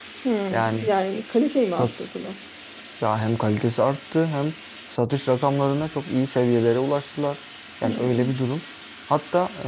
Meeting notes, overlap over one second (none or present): none